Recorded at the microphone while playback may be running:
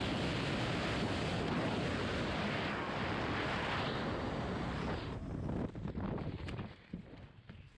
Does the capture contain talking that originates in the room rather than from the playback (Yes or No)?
No